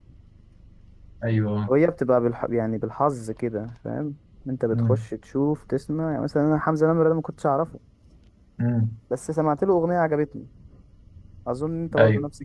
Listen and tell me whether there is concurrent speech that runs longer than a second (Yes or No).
No